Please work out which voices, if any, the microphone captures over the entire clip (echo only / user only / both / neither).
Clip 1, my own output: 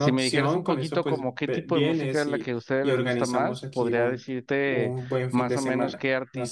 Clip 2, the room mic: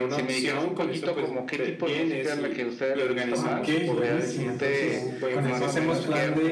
both